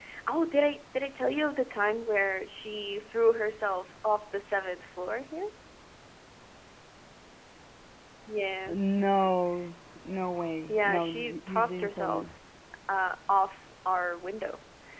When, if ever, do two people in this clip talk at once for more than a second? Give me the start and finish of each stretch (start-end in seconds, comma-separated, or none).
10.7-12.2